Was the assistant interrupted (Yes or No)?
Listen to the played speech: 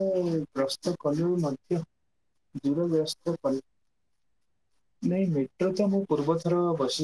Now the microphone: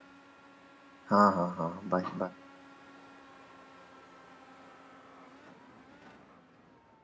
Yes